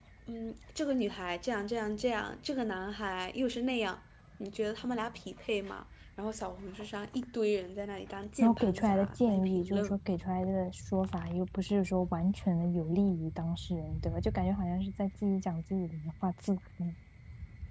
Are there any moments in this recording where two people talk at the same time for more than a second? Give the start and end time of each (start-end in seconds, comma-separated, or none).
8.4-9.9